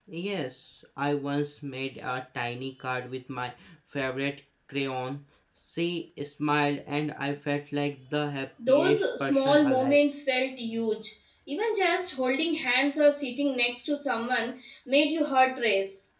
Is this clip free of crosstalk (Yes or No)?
No